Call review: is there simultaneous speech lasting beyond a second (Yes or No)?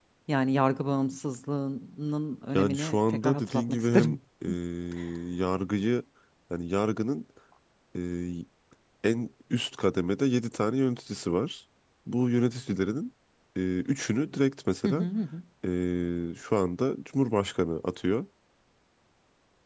Yes